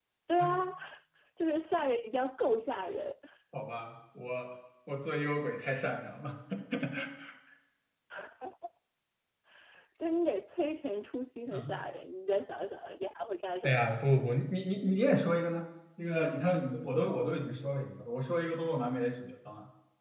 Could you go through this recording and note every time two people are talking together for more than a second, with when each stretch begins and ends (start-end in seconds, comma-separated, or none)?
none